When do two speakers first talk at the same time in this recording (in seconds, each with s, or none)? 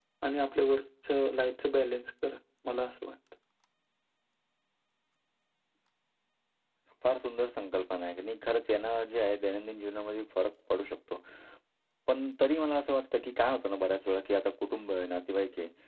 none